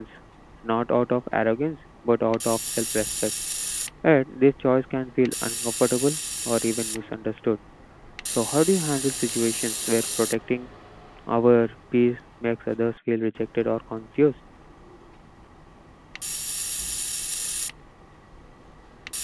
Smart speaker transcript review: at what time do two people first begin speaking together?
none

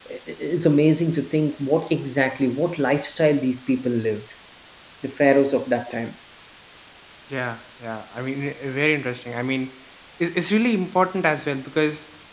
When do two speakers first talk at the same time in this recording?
none

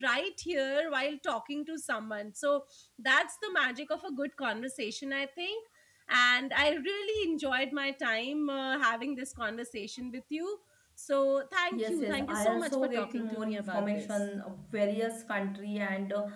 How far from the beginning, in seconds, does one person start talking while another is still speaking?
11.7 s

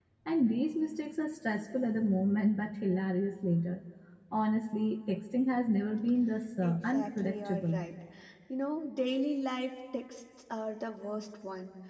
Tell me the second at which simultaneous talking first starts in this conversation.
6.6 s

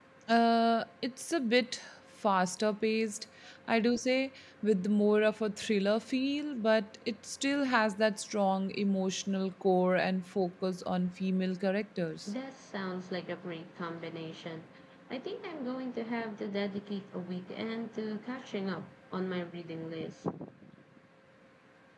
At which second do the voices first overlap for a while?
none

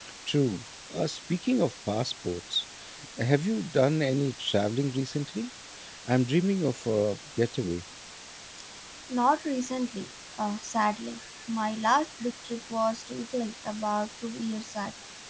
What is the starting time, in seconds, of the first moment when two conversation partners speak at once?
none

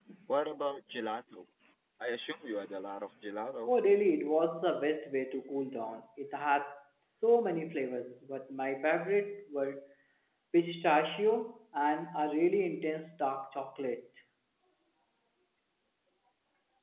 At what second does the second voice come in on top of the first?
none

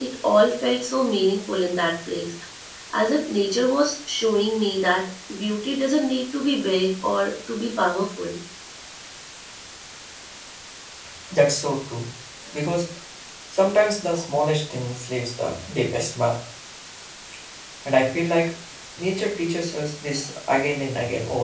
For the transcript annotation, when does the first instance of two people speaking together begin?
none

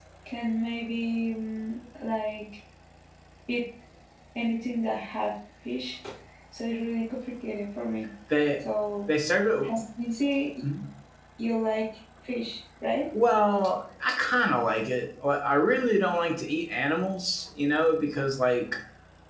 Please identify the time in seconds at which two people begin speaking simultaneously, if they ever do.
none

